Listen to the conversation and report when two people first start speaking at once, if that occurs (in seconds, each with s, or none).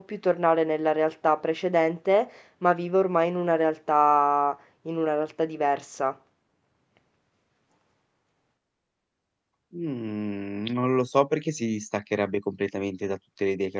none